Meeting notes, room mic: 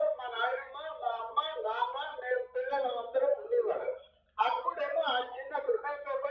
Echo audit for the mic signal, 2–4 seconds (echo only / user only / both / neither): echo only